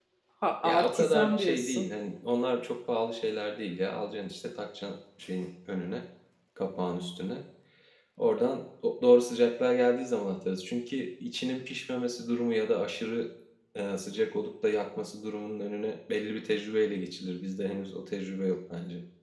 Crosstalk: present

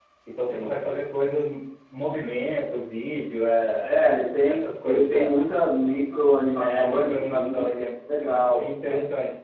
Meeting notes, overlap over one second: present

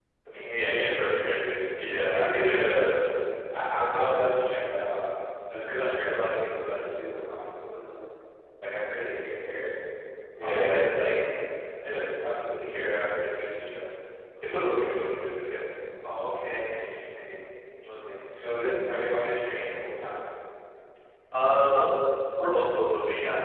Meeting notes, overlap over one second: present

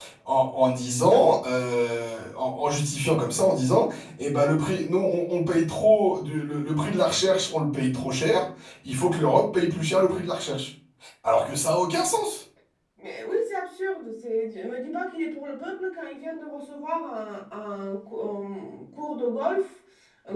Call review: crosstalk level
none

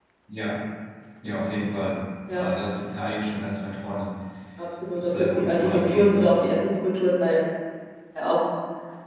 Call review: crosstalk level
present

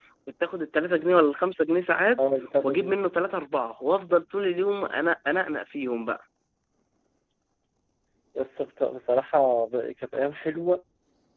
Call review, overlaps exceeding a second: none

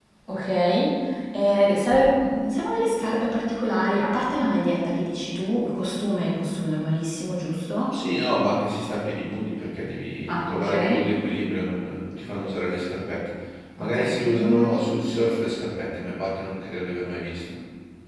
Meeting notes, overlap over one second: present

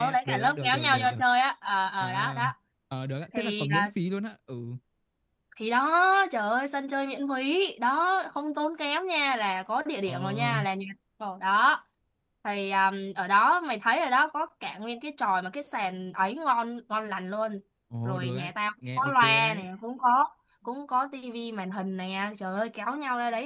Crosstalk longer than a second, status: present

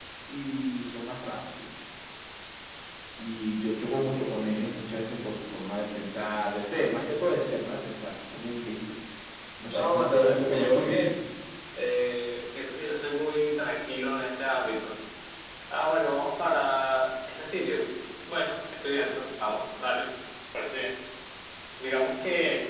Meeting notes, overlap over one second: present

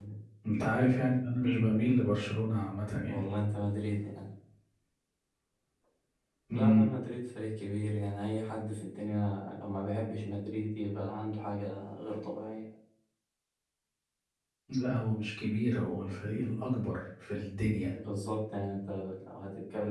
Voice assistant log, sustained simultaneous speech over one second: none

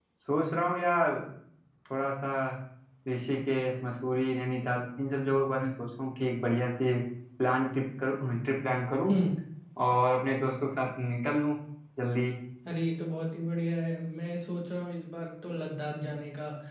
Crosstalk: none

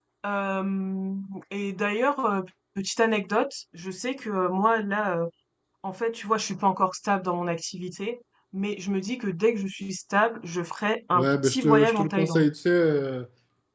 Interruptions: present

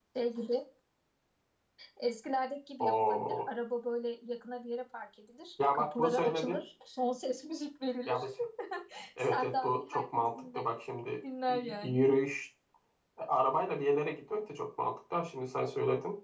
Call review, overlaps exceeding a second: present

